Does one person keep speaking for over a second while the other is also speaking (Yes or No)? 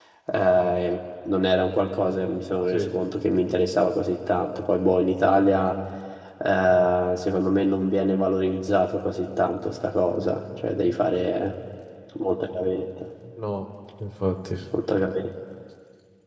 No